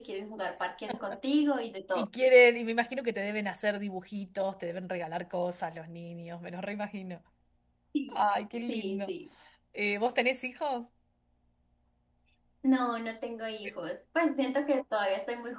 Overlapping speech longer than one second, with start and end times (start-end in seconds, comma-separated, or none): none